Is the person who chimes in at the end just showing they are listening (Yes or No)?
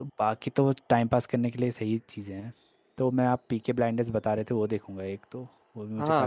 No